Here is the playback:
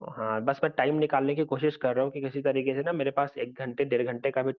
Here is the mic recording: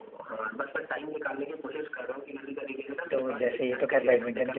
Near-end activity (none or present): present